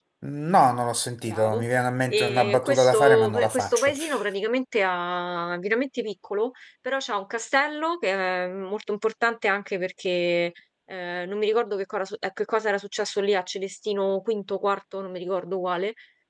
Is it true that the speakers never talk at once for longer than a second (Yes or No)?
No